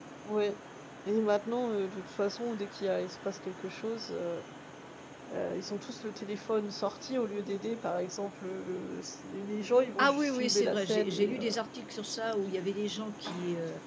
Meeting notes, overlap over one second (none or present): present